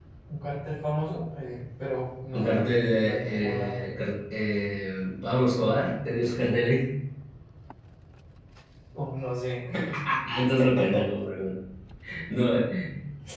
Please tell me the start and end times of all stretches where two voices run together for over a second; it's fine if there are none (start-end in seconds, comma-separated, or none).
2.3-3.8